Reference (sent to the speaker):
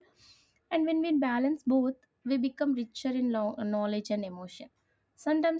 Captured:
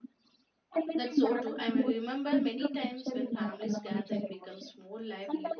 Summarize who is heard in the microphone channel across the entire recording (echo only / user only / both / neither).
both